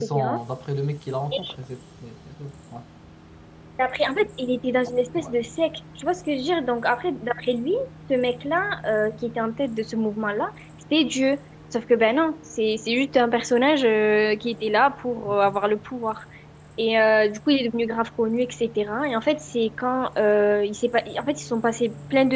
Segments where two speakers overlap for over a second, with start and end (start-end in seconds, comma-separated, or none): none